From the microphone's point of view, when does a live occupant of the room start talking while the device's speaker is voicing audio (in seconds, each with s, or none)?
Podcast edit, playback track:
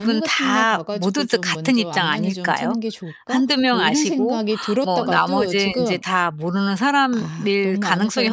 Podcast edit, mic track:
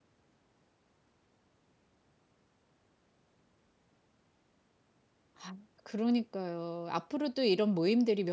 5.3 s